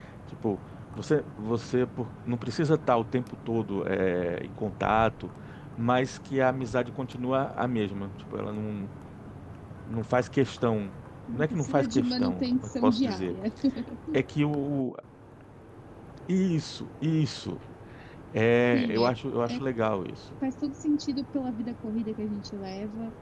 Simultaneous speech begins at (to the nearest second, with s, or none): 11 s